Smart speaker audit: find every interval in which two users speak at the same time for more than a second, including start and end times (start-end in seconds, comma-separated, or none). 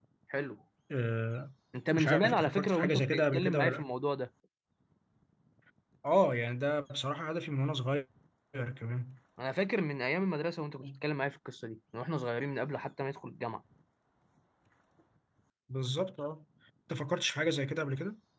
2.0-3.8